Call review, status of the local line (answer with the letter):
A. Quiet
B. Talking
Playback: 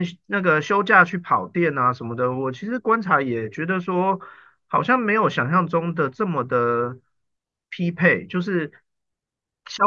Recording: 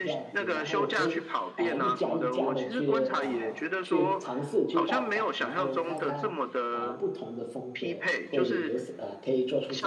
B